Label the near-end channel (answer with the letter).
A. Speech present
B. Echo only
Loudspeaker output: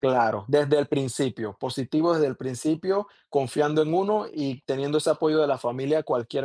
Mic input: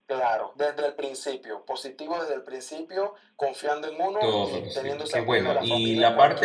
A